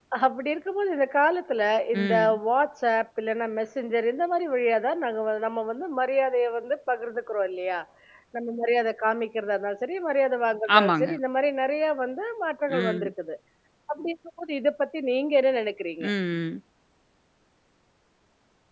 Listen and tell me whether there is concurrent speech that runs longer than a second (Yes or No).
No